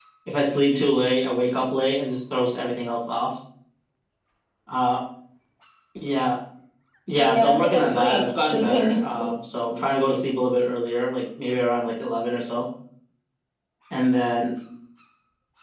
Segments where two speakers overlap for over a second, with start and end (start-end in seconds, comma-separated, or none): 7.2-9.0